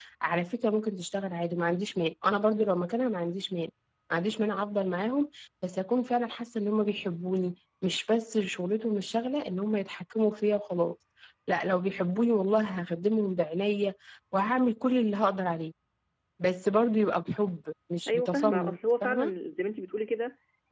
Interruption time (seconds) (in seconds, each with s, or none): 18.1 s